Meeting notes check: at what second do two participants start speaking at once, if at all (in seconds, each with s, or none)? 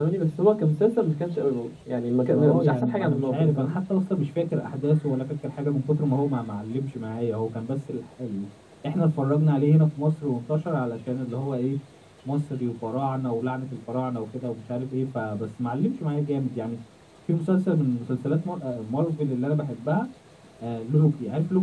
2.3 s